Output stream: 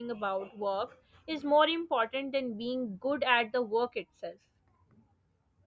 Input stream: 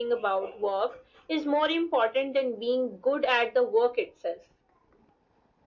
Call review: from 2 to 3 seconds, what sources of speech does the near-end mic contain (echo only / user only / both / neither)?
echo only